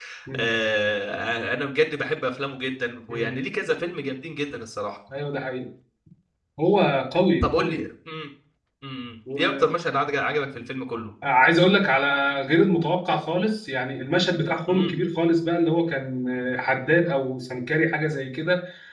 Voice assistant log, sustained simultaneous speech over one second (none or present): none